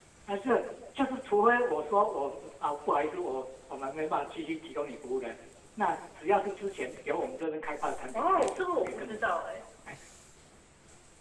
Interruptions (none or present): present